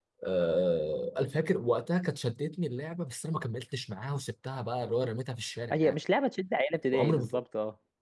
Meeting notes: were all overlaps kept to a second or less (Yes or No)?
Yes